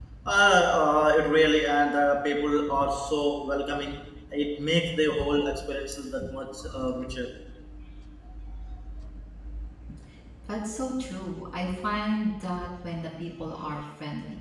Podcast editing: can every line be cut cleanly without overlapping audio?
Yes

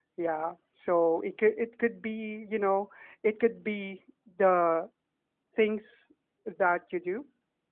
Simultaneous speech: No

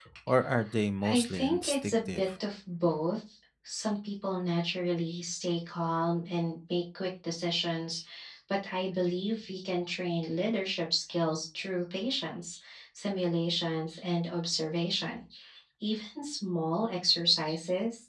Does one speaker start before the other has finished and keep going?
Yes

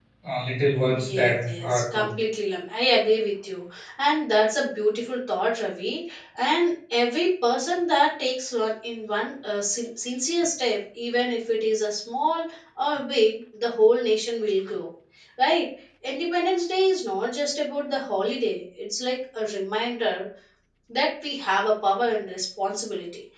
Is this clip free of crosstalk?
No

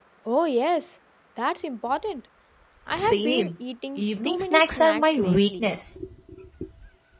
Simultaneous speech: Yes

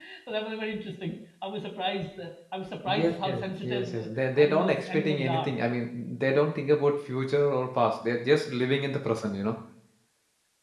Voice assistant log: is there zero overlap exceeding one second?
No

